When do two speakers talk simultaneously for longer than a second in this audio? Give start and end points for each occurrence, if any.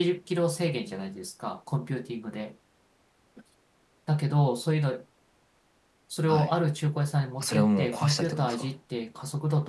7.4-8.7

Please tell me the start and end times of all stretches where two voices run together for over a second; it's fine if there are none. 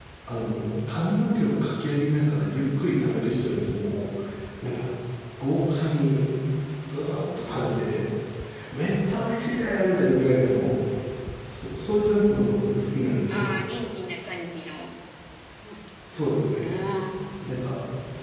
none

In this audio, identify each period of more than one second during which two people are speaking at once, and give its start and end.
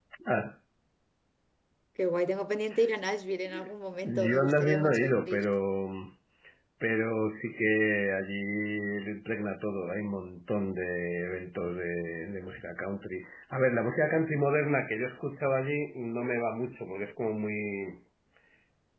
4.0-5.4

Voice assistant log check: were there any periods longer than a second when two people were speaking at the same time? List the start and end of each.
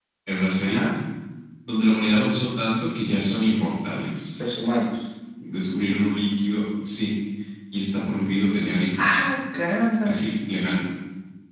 none

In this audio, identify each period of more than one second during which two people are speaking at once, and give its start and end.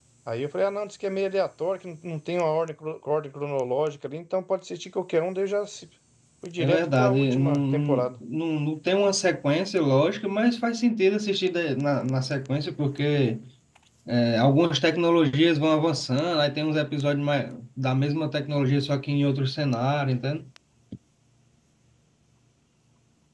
6.6-8.1

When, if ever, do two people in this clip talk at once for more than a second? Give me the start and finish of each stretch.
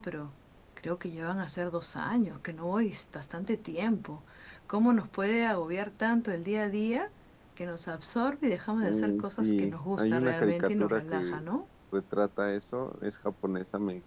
8.8-11.4

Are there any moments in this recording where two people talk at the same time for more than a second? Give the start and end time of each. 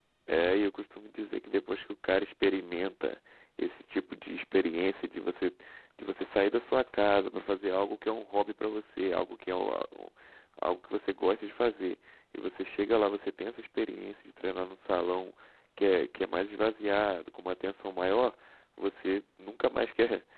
none

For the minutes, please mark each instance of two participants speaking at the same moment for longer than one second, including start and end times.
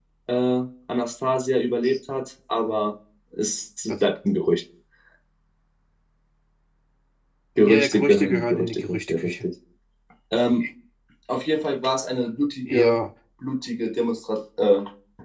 7.7-9.4

